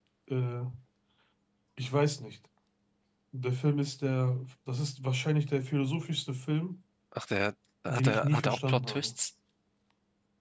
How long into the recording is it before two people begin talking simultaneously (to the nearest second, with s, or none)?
8 s